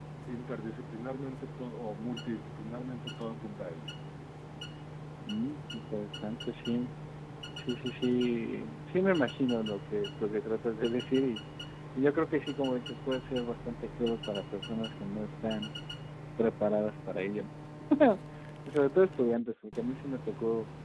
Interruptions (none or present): none